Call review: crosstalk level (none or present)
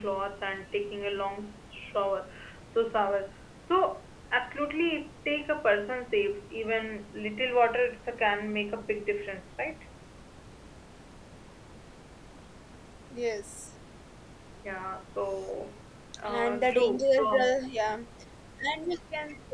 present